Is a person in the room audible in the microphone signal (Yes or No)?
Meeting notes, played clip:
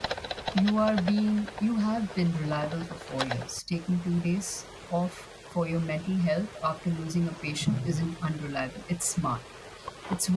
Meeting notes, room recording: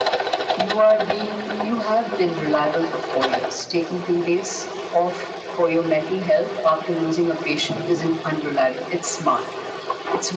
No